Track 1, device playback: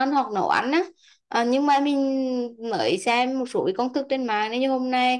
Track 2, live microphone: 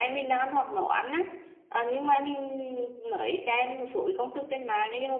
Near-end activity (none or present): none